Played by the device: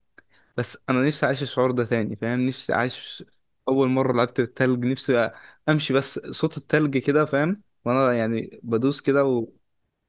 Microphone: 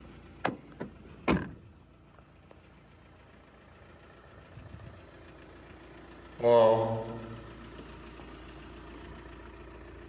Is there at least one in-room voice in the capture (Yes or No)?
Yes